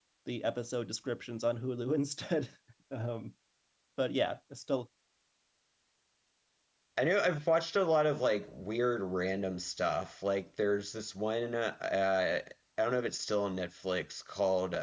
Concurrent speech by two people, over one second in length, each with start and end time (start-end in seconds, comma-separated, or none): none